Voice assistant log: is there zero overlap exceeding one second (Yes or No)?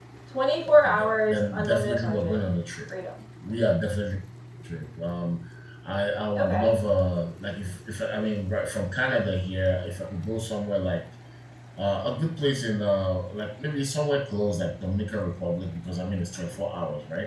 No